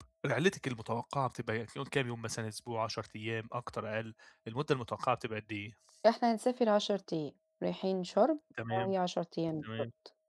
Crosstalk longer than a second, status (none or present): none